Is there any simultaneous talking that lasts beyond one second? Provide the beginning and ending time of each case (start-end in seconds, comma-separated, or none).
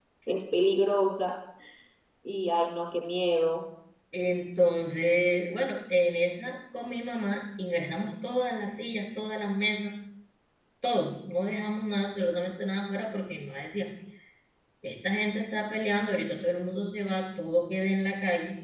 none